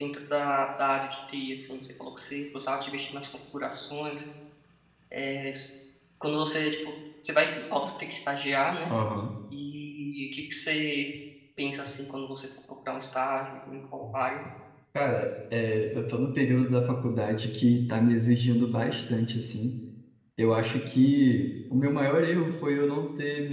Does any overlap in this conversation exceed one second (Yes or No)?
No